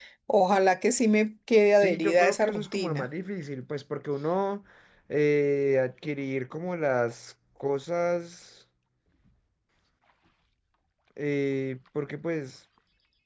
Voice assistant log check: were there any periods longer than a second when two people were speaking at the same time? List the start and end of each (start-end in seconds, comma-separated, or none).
1.8-3.0